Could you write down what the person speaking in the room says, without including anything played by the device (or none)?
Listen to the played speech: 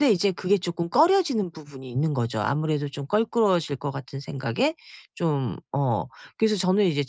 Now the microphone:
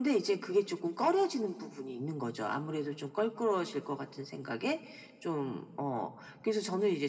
none